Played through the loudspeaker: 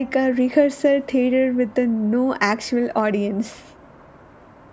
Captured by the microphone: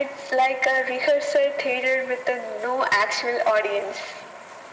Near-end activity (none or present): none